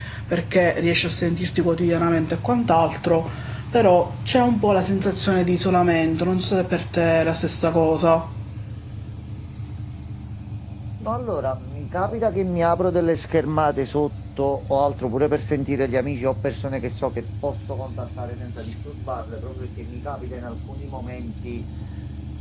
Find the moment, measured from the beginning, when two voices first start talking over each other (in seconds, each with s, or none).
none